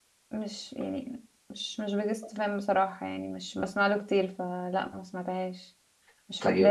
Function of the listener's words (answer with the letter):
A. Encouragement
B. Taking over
A